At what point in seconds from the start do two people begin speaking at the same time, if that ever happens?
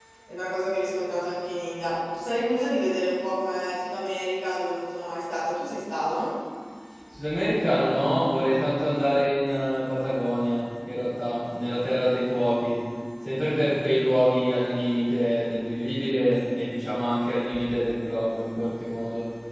none

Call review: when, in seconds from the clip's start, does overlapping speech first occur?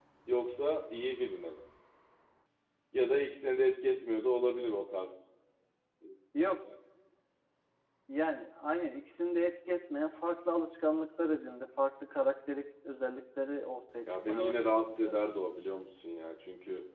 14 s

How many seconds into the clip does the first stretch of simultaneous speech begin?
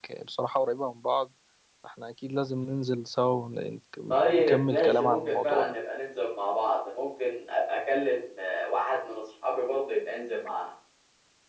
4 s

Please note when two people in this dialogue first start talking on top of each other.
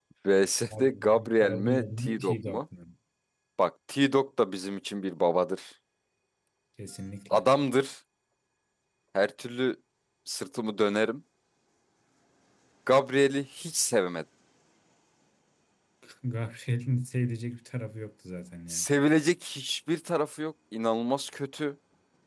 1 s

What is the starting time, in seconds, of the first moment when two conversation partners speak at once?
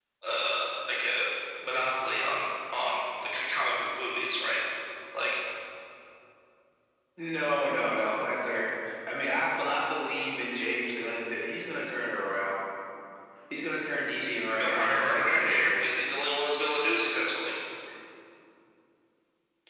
15 s

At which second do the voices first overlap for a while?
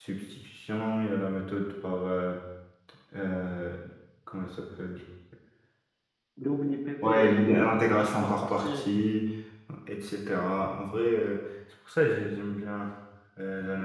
7 s

